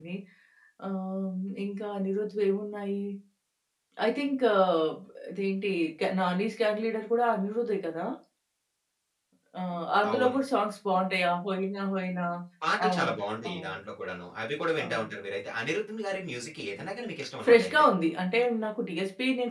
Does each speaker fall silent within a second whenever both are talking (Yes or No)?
Yes